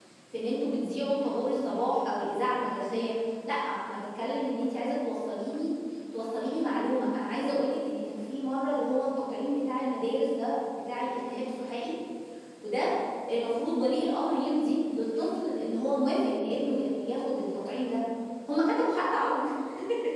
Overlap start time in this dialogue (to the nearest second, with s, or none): none